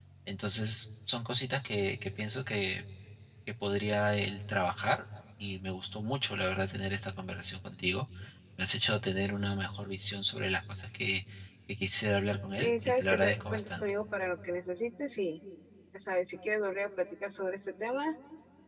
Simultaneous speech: Yes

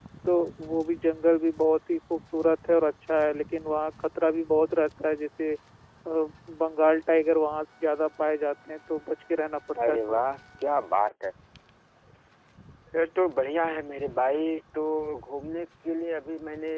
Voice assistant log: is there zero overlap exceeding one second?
Yes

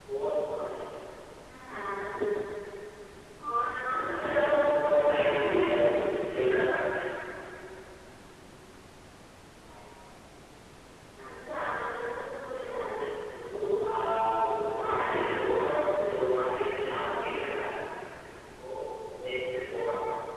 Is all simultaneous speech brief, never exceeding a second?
No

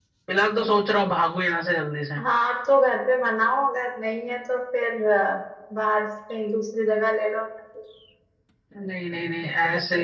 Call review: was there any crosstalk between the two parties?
No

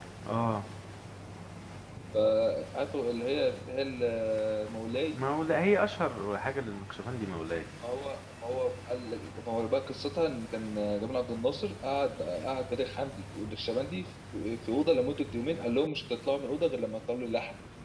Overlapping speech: No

